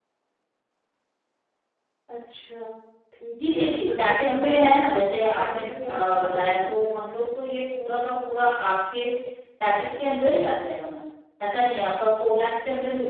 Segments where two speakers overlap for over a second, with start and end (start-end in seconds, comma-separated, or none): 3.4-7.0